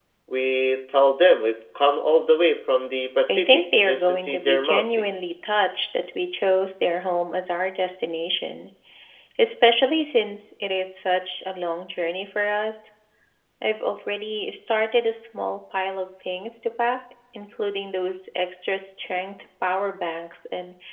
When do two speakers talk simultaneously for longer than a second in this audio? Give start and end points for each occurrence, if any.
3.3-5.3

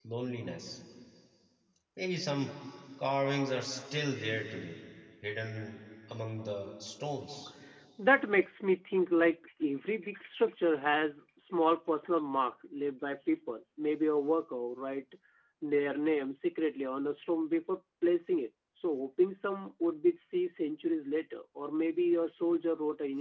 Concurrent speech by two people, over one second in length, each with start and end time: none

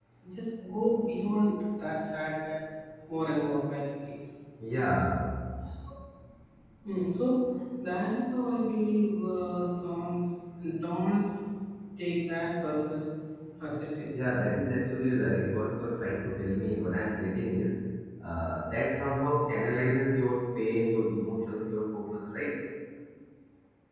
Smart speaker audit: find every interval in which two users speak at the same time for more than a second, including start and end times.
none

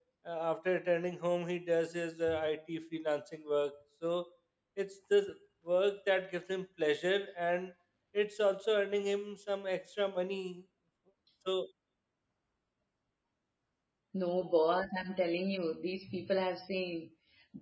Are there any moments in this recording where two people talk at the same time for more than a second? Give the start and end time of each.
none

